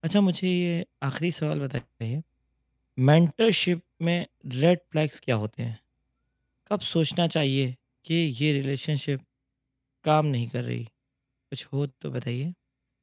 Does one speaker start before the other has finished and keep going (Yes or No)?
No